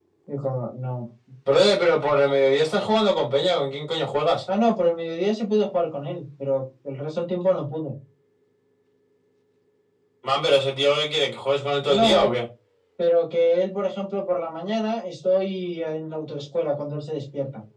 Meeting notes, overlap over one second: none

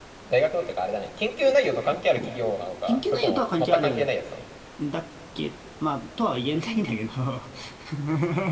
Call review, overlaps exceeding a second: present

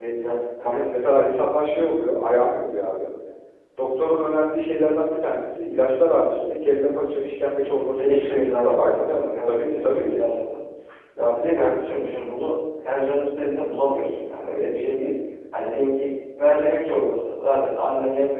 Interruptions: present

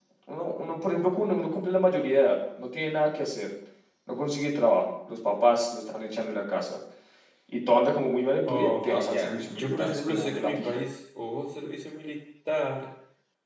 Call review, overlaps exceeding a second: present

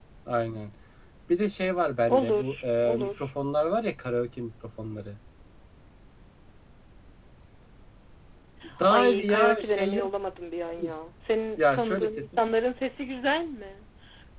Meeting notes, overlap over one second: present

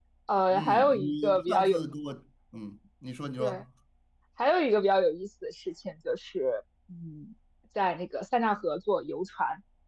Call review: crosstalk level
present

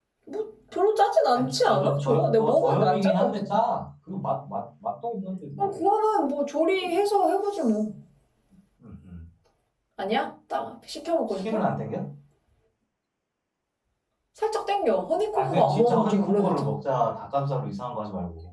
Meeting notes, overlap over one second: present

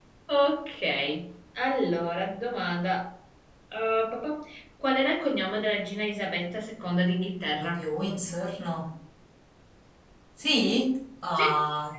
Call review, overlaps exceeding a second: none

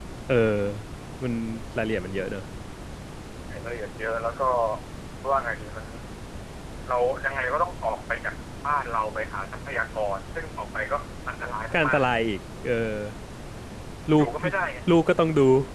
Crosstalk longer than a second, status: none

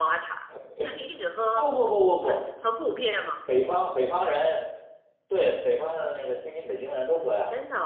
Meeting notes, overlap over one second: none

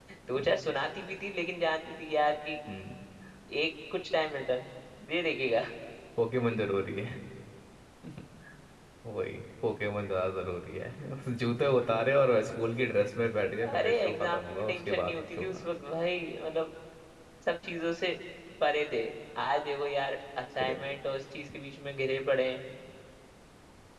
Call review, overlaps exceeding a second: present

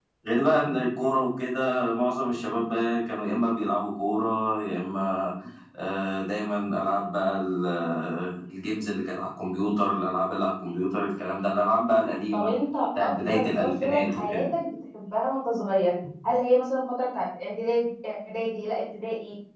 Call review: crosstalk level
present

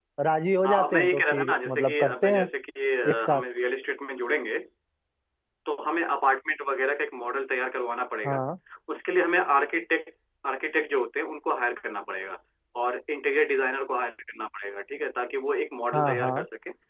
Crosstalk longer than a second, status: present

